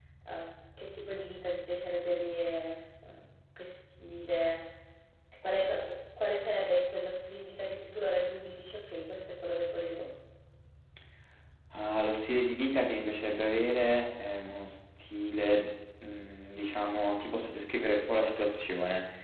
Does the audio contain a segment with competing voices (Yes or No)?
No